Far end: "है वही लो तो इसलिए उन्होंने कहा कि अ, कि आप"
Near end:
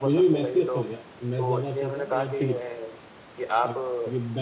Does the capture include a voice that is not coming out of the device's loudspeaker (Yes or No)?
Yes